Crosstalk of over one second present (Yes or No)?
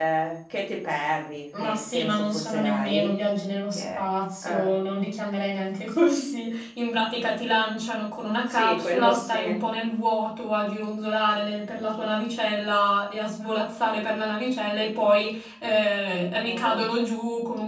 Yes